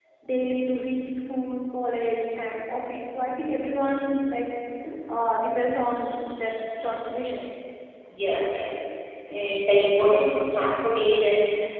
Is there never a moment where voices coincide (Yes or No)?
Yes